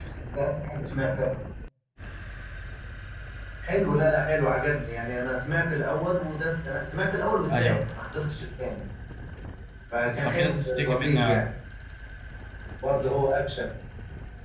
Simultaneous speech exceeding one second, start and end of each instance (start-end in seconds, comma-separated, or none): 10.1-11.5